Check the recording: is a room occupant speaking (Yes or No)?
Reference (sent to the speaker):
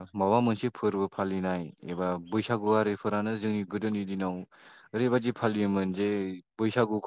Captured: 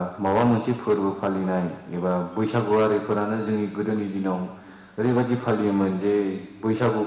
No